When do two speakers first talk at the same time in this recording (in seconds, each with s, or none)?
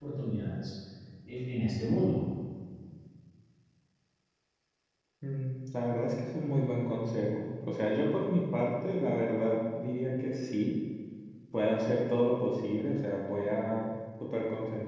none